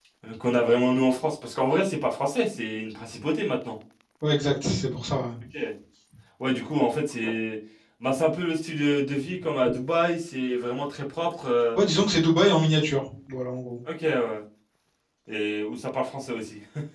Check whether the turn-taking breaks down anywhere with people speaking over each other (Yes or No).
No